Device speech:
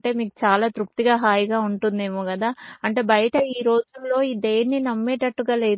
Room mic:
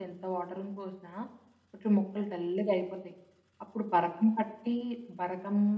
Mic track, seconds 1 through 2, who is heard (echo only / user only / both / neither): user only